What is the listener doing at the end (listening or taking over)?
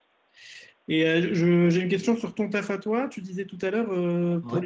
listening